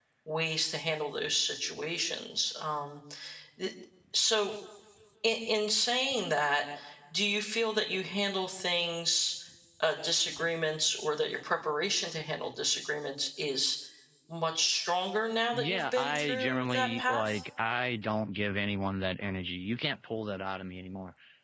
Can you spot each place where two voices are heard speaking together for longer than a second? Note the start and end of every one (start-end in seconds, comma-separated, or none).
15.5-17.4